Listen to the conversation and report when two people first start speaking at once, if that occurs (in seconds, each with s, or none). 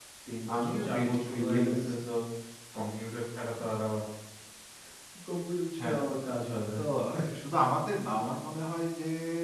0.6 s